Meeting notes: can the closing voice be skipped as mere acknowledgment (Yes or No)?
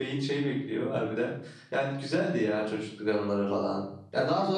Yes